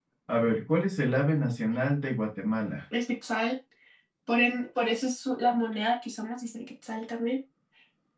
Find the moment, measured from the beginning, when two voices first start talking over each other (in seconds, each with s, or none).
none